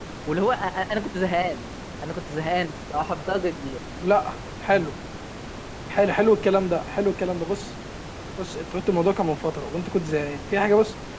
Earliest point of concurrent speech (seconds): none

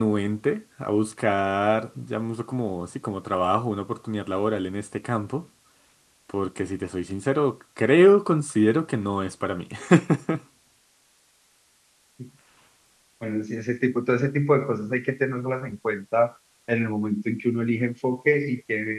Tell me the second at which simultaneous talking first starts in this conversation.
none

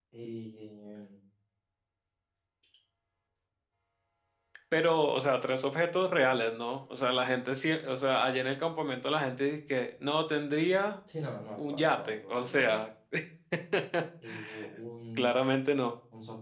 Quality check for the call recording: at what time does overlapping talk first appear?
11.6 s

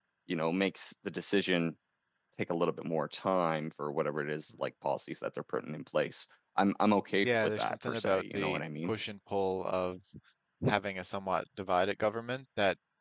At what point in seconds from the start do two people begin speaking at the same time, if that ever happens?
7.2 s

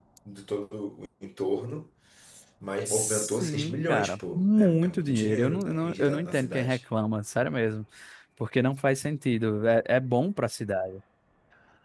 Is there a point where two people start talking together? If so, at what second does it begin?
2.9 s

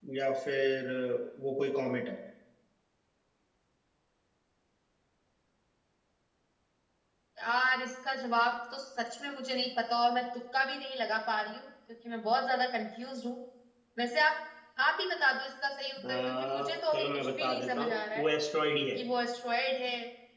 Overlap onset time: 16.0 s

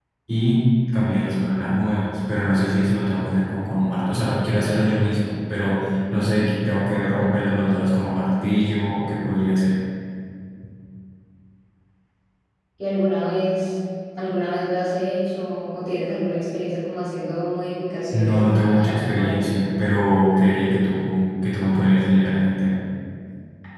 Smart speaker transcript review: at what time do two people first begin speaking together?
18.1 s

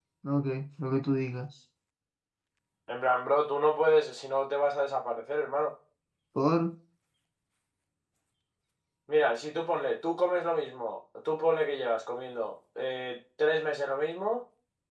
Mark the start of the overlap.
none

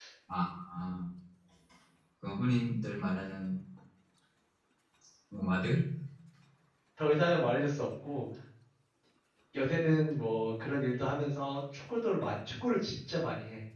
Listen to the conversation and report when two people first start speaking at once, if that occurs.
none

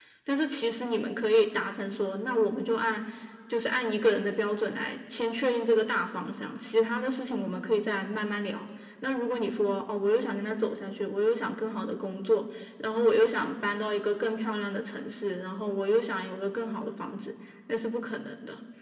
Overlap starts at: none

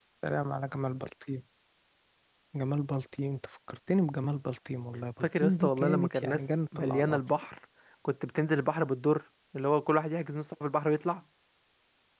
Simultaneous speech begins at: 5.2 s

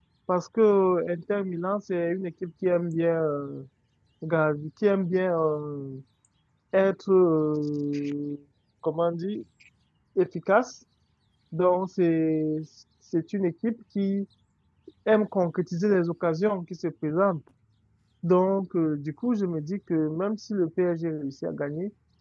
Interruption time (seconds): none

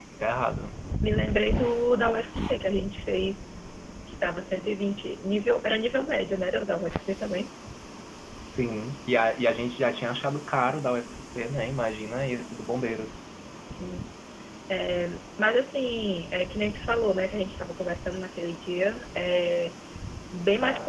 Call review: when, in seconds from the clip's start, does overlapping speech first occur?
none

